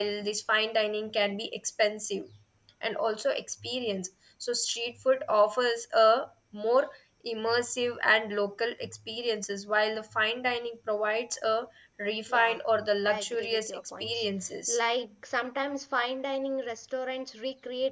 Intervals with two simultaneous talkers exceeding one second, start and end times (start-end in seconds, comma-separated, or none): 13.1-14.3